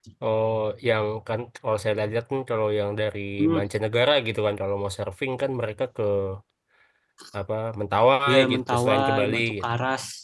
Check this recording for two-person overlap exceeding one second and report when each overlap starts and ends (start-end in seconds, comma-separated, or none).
8.3-9.6